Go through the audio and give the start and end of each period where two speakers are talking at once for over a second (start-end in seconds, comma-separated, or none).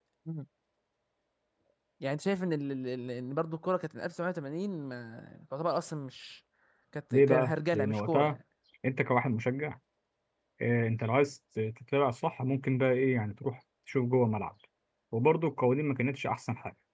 7.1-8.4